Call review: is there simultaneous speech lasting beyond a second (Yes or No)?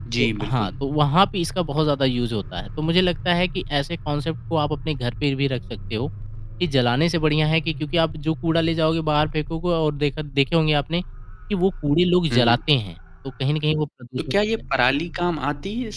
No